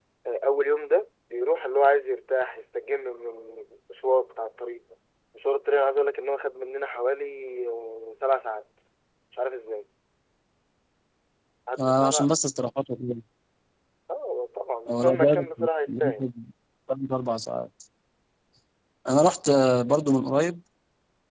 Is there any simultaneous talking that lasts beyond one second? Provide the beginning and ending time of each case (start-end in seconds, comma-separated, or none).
14.9-16.2